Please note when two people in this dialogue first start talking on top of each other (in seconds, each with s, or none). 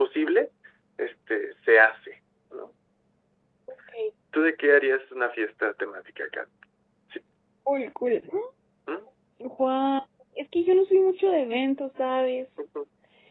none